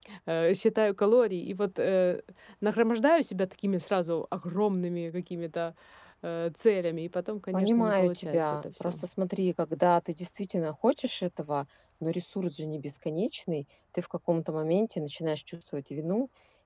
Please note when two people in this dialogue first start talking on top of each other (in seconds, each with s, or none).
7.5 s